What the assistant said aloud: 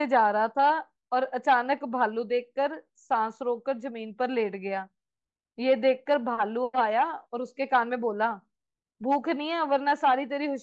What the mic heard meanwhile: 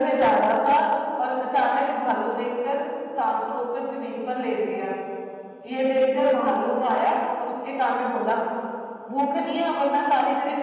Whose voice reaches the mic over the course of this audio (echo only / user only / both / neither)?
echo only